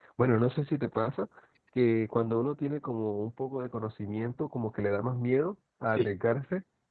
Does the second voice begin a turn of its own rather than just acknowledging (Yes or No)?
No